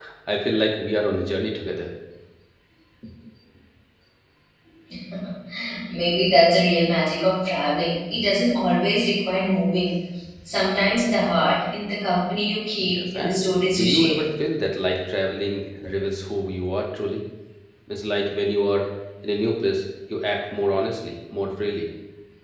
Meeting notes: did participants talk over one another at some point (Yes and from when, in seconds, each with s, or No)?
Yes, from 12.8 s